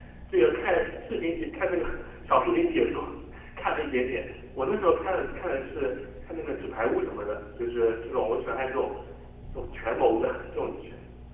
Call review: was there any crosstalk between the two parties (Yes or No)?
No